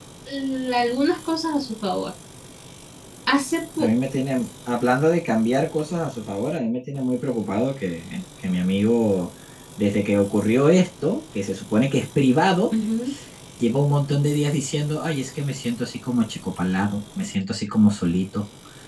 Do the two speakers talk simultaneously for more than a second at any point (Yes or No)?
No